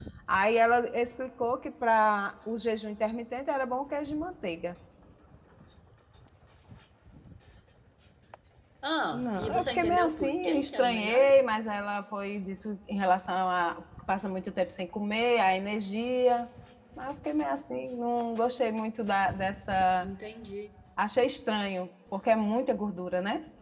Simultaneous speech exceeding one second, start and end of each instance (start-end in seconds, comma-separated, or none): 9.1-11.3